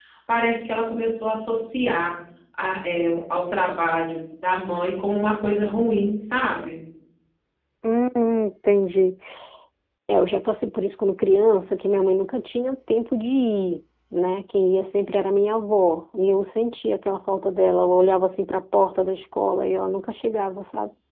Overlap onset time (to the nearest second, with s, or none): none